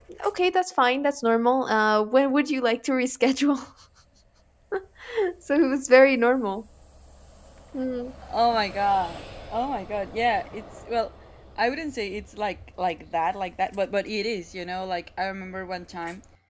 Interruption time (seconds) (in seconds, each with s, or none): none